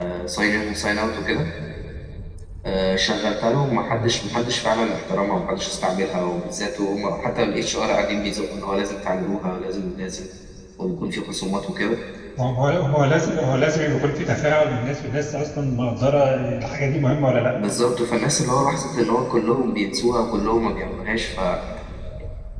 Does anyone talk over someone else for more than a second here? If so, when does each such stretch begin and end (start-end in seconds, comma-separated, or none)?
none